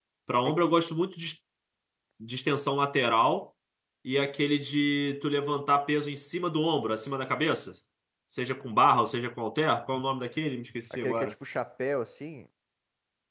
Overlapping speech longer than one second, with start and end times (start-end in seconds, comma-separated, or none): none